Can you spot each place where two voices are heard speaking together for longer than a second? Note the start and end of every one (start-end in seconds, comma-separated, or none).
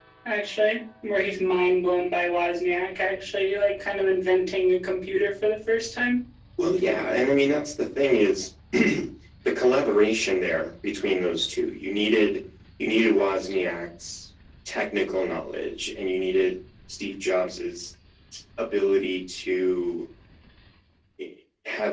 none